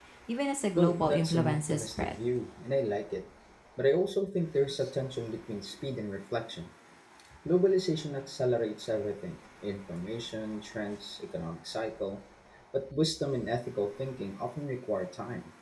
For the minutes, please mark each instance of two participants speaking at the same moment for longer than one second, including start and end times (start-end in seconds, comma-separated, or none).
0.8-2.1